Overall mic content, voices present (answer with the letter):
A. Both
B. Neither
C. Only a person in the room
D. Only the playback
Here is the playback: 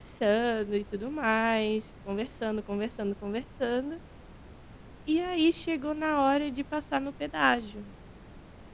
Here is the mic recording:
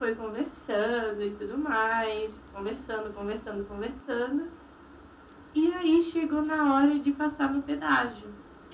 D